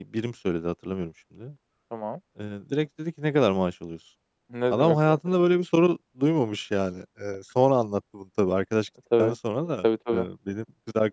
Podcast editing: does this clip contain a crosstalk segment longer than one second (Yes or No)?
No